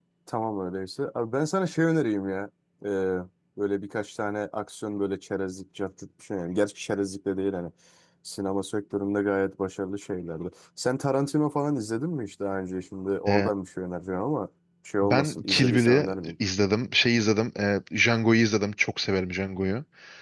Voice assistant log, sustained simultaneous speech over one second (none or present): present